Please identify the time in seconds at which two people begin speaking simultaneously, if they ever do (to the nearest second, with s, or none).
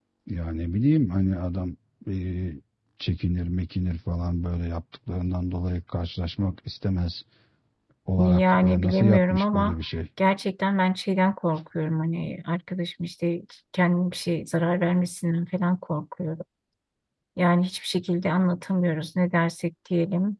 8 s